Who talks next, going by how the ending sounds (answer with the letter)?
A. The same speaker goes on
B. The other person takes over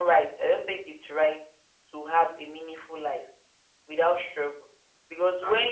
A